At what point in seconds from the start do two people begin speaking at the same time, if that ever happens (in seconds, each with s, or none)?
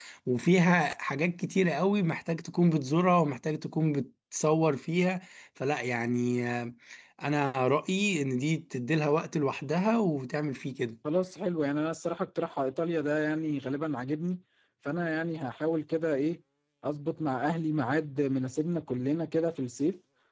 none